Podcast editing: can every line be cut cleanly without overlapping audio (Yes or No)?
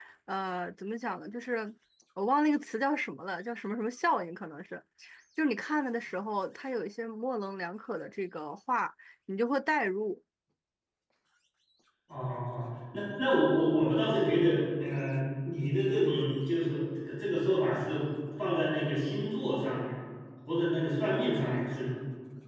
Yes